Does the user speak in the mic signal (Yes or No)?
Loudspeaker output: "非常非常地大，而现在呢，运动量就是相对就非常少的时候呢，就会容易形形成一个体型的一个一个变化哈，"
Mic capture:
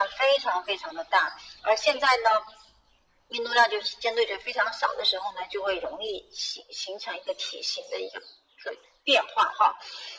No